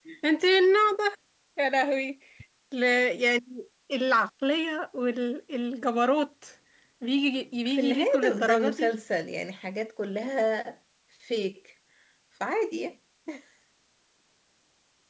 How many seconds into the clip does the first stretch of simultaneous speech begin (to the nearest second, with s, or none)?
8 s